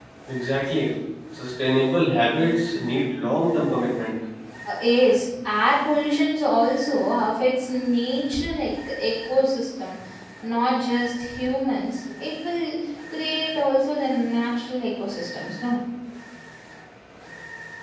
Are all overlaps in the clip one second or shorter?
Yes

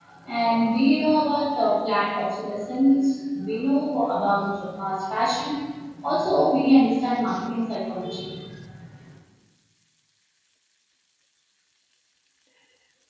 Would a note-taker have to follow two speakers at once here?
No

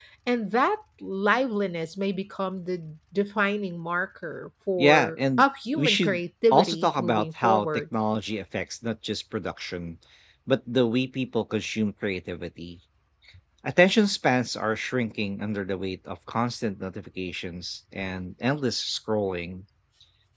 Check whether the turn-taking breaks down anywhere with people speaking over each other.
Yes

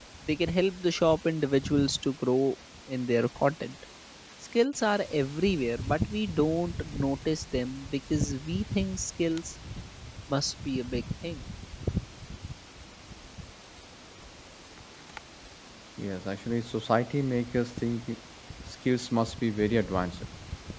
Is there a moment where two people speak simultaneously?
No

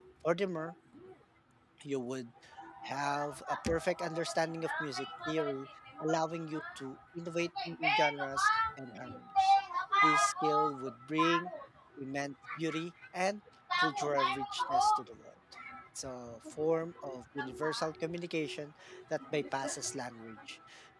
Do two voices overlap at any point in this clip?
Yes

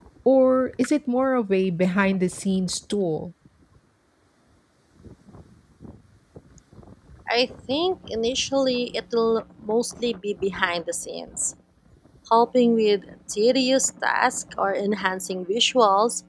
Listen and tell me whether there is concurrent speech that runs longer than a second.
No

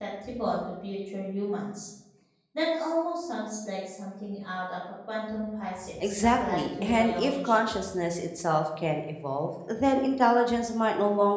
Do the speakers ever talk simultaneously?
Yes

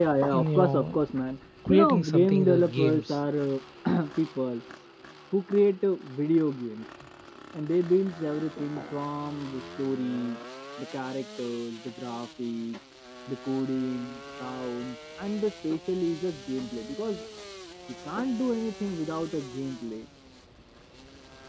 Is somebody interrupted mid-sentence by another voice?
Yes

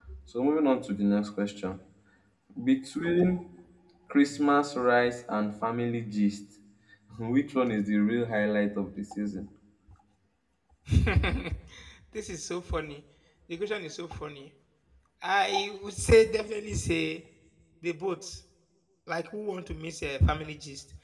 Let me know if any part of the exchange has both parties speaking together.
No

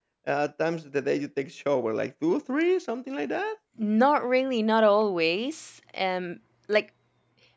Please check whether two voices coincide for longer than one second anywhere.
No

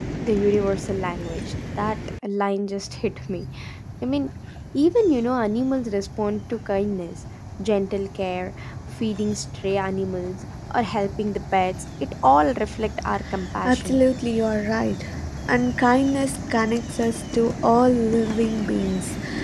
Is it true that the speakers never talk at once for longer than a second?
Yes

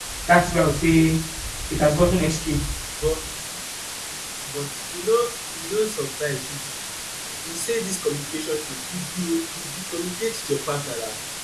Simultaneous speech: No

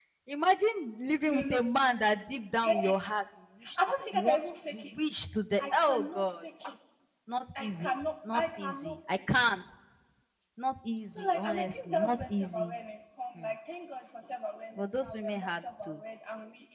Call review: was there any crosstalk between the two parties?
Yes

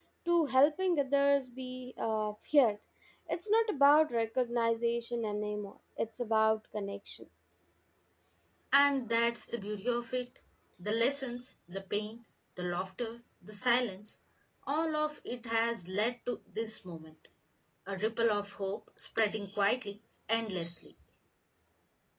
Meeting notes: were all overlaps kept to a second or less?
Yes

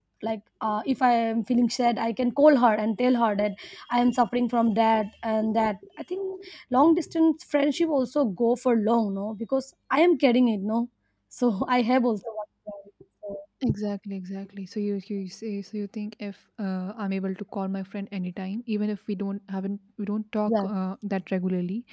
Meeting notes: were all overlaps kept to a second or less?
Yes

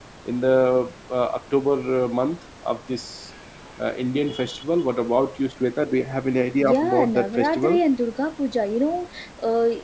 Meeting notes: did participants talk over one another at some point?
Yes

